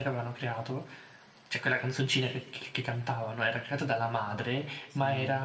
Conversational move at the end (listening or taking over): listening